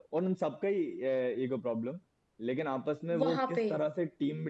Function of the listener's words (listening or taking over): listening